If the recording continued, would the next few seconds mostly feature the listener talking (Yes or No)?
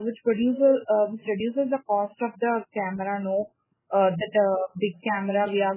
No